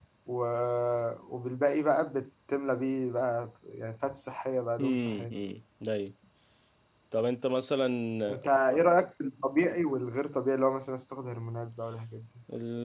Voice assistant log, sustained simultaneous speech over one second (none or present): none